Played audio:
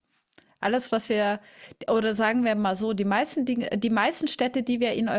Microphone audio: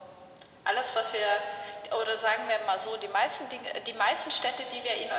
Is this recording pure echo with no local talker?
Yes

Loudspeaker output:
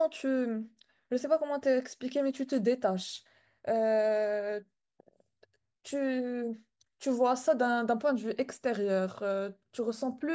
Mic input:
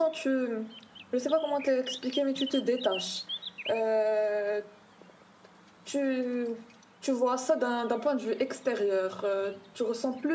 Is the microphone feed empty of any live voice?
Yes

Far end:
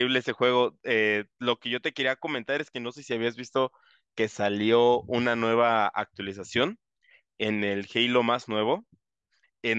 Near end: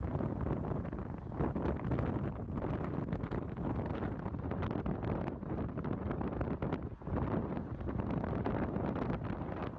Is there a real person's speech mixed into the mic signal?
No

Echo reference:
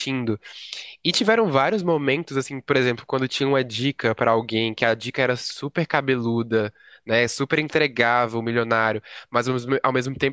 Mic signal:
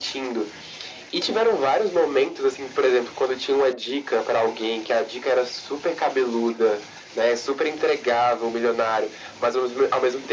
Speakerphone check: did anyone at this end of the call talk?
No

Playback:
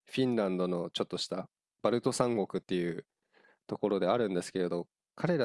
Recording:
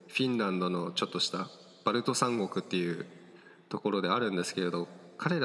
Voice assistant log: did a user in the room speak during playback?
No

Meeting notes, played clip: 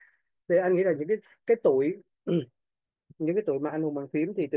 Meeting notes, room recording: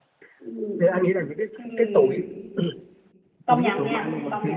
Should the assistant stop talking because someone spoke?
Yes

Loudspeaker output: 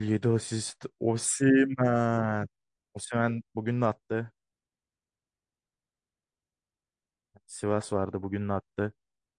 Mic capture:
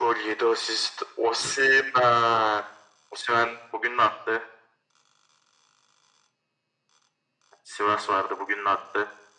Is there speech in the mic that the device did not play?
No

